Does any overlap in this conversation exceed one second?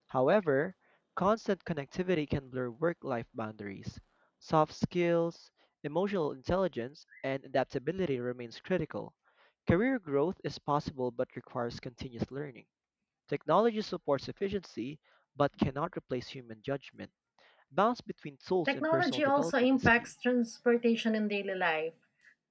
Yes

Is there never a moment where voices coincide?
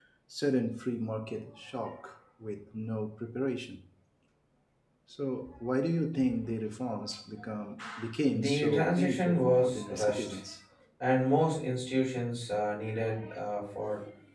No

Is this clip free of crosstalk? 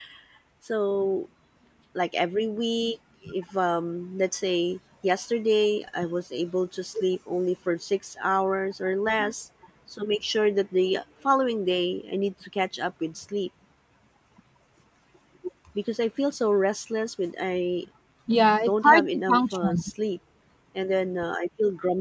No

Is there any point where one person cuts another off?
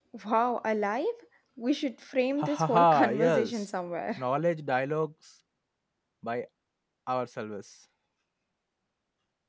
Yes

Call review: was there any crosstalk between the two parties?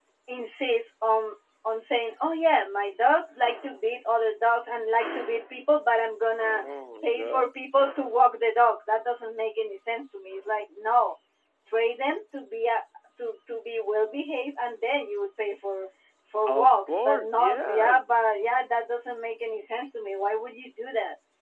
Yes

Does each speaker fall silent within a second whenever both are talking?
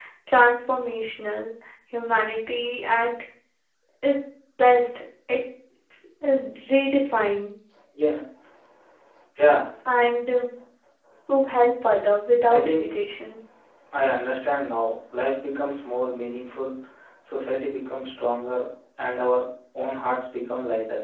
Yes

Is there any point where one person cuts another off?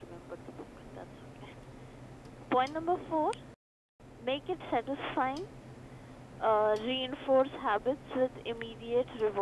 No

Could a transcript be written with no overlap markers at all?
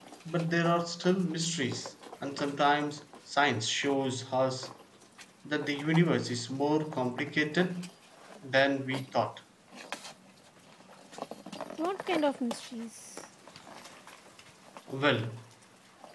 Yes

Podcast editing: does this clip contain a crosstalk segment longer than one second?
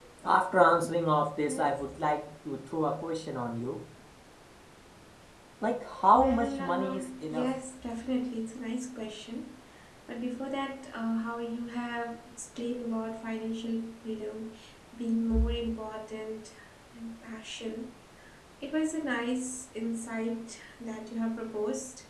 Yes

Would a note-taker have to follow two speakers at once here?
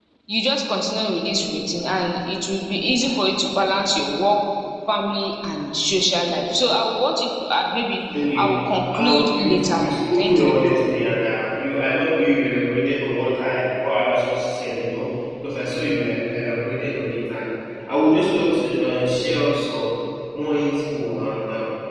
Yes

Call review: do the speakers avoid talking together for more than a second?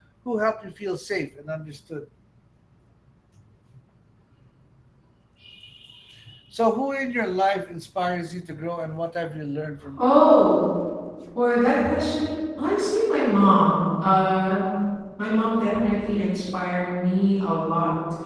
Yes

